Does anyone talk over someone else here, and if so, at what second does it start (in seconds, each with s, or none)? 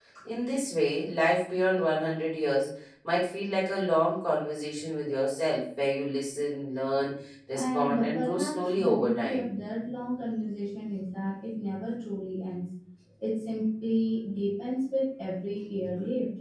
7.5 s